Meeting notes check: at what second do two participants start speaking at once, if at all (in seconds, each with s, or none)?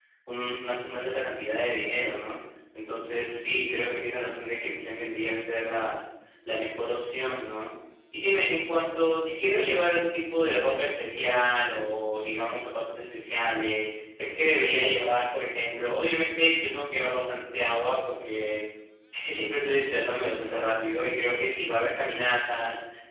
none